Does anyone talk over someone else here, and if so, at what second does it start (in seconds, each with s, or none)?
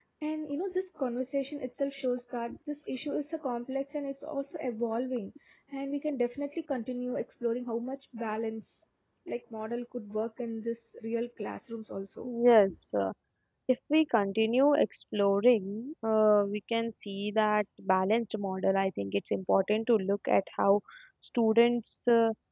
none